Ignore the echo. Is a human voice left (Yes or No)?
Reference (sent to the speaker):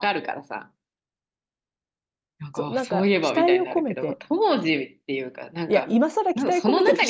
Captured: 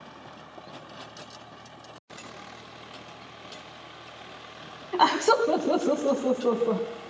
Yes